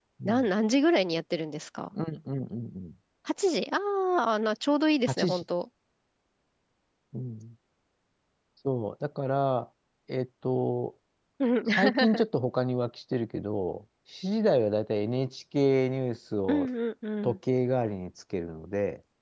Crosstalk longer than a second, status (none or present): none